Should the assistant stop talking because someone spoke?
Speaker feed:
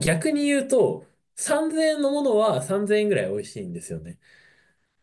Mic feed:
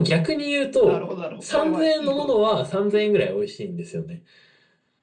Yes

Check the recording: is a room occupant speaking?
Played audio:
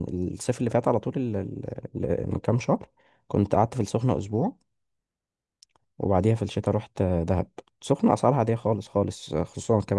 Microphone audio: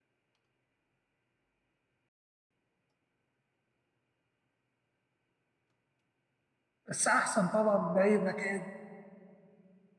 Yes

